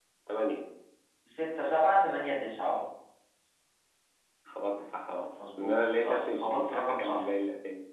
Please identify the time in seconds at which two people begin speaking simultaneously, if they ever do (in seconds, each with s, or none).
5.4 s